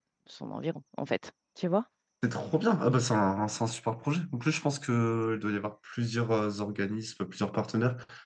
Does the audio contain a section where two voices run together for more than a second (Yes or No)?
No